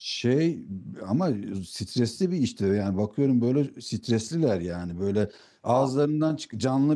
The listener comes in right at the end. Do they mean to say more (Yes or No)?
No